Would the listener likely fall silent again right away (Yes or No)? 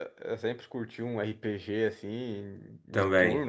Yes